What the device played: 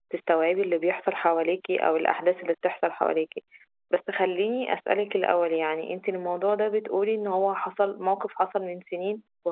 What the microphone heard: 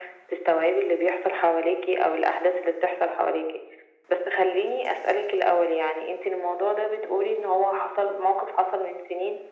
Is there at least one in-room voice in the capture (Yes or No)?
No